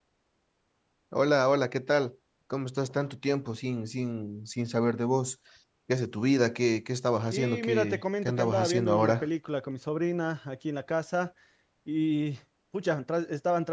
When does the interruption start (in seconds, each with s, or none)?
7.3 s